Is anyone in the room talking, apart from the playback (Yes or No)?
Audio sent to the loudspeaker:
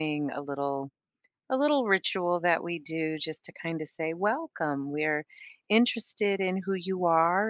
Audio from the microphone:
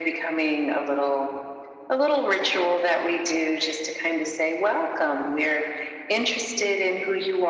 No